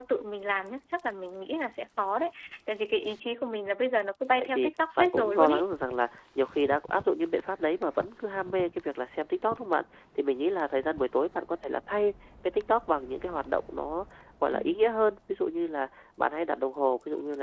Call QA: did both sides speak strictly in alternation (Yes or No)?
No